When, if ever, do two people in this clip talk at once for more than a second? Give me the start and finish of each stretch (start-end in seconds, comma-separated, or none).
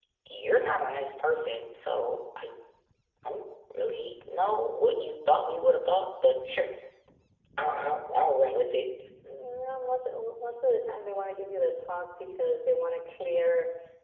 none